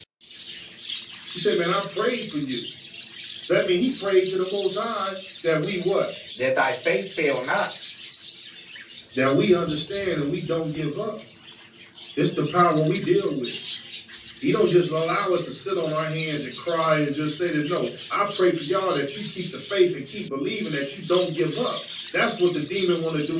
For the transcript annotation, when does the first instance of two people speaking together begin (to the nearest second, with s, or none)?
none